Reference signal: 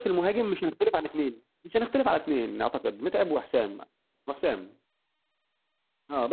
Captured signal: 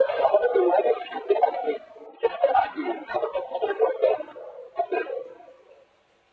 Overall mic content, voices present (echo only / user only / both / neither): echo only